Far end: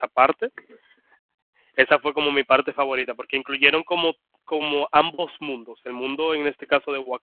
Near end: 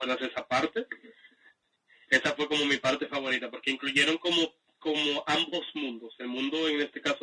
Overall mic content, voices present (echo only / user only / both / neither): echo only